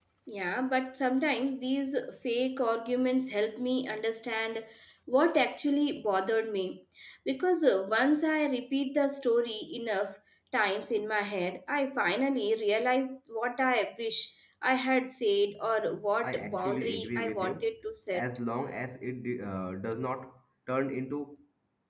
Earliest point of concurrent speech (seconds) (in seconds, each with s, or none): 16.2 s